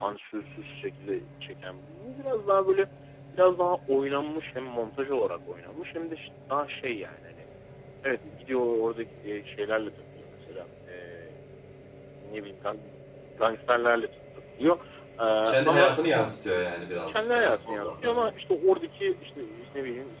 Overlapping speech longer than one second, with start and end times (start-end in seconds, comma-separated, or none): 17.1-18.3